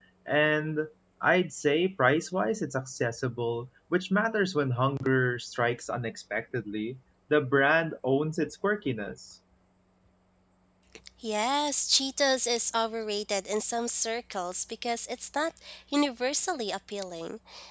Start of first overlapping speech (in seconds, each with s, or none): none